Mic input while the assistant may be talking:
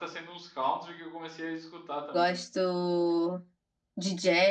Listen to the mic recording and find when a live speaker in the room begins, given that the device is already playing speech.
2.1 s

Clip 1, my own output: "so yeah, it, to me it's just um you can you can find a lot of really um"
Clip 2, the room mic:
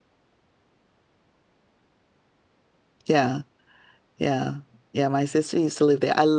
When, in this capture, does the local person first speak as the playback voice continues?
3.1 s

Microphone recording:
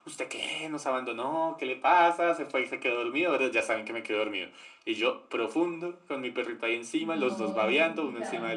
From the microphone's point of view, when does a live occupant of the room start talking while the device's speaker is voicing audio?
7.0 s

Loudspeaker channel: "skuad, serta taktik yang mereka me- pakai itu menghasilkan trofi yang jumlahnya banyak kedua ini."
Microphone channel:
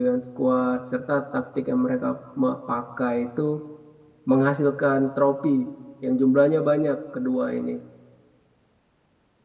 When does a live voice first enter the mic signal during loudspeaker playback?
none

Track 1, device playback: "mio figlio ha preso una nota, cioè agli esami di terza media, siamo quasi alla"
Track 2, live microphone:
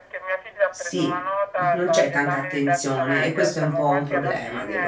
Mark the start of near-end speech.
0.7 s

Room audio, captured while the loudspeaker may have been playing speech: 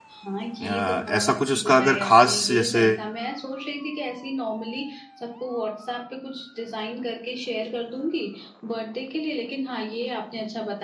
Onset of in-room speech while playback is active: 0.6 s

